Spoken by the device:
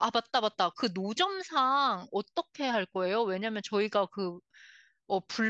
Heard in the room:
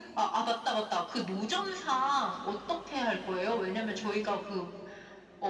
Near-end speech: none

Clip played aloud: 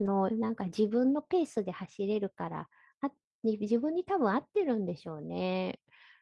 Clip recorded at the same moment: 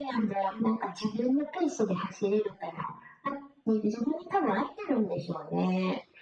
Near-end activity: none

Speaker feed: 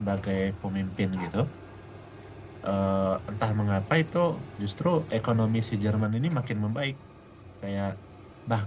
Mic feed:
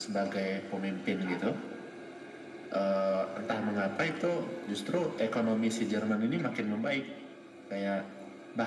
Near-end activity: none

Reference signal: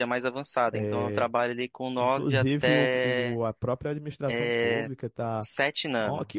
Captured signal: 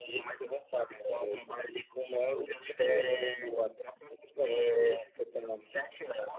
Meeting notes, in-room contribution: none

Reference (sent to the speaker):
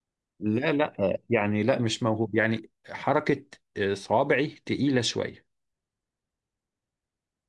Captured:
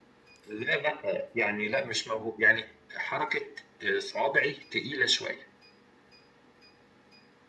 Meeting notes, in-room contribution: none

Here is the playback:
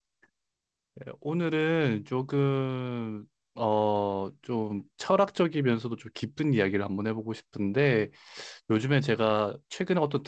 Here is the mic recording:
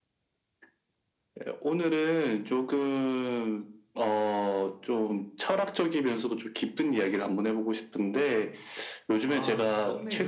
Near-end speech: present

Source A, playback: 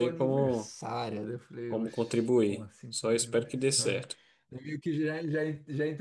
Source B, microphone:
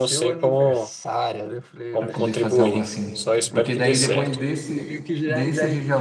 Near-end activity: present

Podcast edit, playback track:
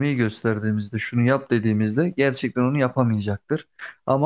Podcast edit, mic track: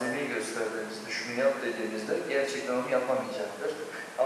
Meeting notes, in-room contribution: none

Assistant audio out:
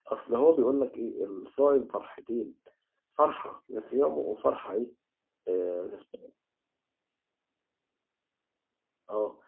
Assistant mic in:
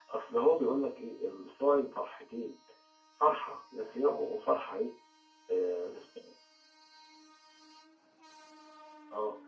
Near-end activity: none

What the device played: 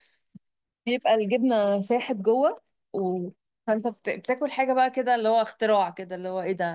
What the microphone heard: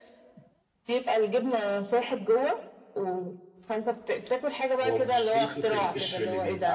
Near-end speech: present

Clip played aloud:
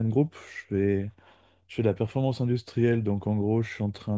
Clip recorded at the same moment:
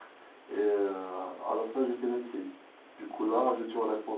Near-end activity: present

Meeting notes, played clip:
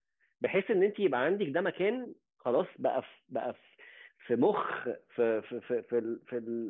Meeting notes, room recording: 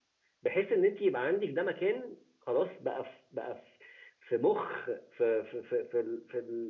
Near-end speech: none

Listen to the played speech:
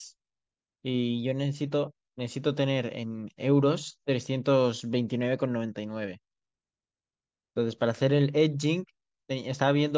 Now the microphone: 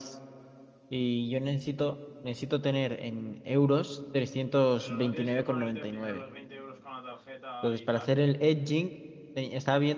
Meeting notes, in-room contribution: present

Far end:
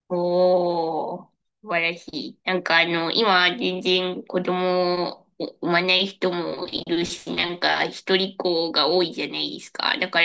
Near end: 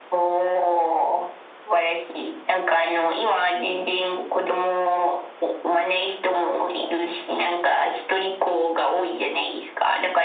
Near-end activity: none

